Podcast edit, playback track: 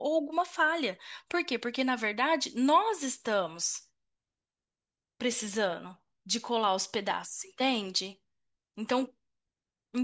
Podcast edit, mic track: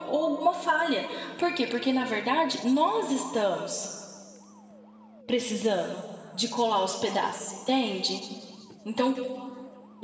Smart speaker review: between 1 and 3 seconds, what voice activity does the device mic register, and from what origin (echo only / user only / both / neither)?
echo only